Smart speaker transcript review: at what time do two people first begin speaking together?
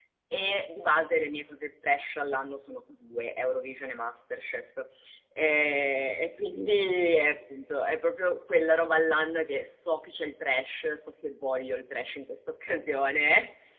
none

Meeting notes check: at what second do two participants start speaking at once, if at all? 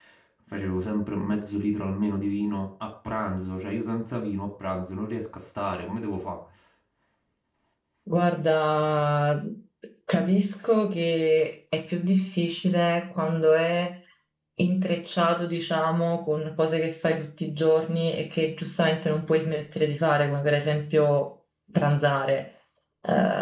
none

